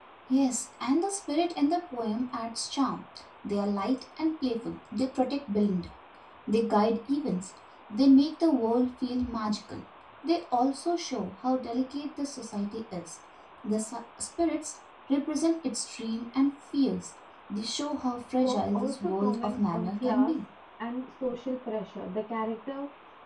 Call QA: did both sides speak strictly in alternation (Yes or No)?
No